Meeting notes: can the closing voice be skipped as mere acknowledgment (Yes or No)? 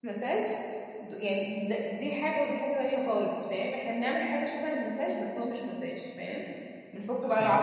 No